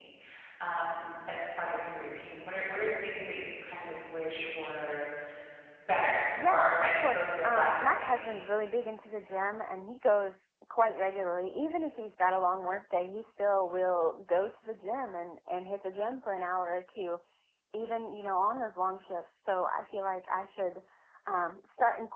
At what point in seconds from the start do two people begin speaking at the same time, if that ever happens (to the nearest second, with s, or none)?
6 s